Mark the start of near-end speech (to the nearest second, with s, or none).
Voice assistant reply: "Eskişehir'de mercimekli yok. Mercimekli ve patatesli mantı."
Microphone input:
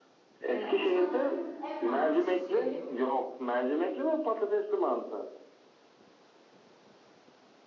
0 s